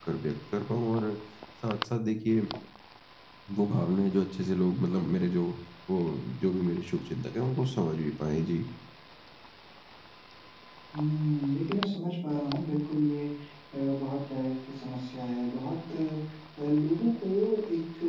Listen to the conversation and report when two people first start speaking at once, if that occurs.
none

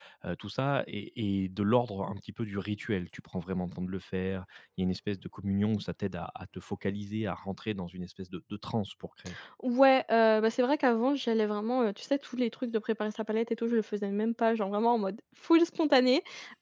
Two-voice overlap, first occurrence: none

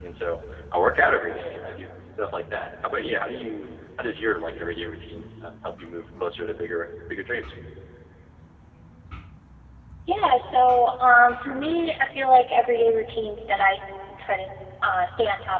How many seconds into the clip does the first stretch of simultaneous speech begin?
none

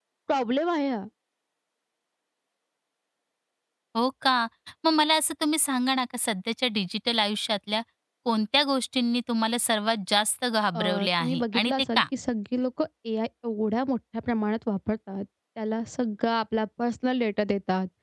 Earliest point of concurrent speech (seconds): 11 s

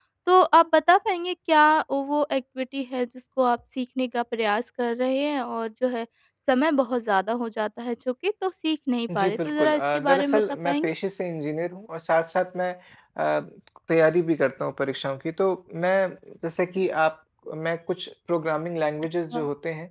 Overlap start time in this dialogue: 9 s

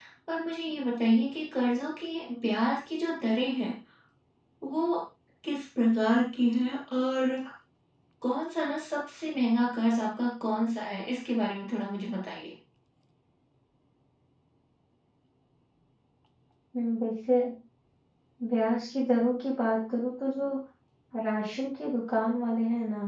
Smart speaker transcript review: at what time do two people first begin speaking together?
none

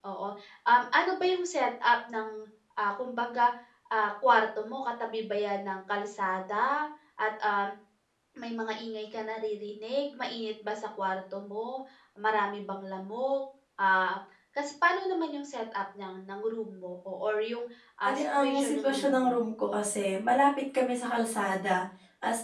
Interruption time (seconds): 18 s

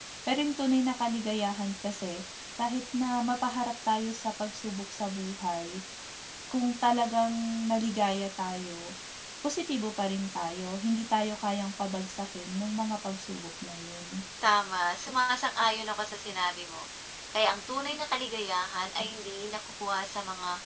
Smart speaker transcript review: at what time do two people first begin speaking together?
none

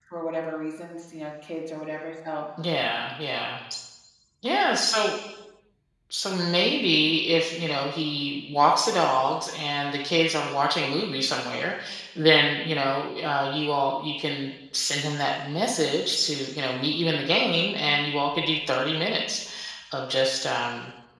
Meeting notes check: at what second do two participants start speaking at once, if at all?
none

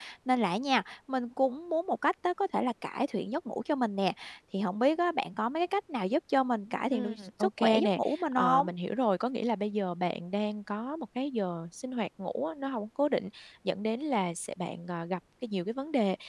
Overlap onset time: 7 s

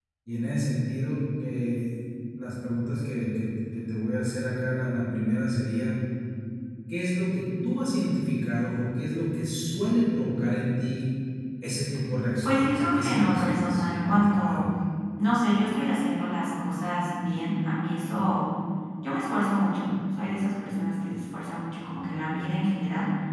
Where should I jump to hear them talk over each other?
12 s

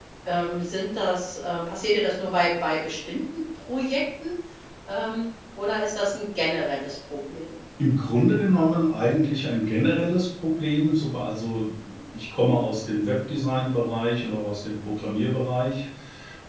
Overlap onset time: none

